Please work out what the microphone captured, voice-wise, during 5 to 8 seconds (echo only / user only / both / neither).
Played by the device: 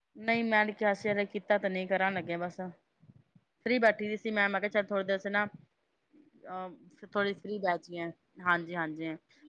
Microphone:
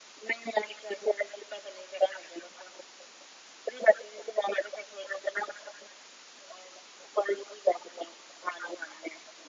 echo only